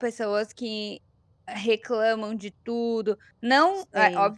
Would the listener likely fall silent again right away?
Yes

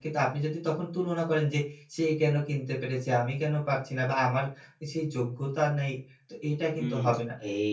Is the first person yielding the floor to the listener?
Yes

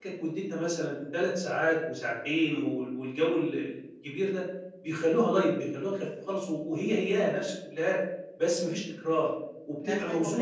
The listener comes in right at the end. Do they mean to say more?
Yes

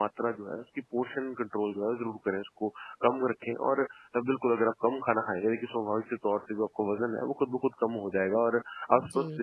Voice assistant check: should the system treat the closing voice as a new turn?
No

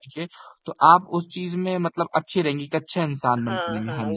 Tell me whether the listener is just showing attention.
No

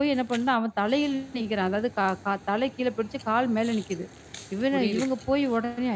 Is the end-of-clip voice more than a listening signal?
No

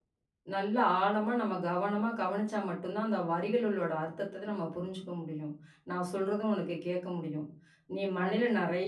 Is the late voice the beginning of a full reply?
No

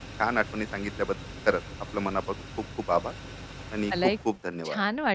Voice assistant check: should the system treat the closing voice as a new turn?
Yes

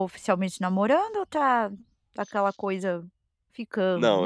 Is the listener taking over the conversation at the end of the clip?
Yes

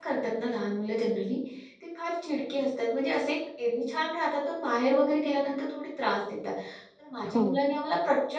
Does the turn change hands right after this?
No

